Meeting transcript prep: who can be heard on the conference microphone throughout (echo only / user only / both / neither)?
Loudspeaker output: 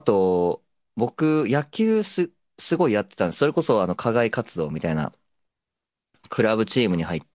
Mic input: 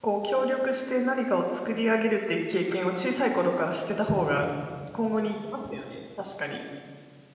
user only